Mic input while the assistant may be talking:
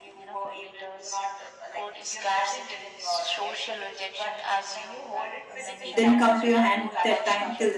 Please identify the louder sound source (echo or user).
user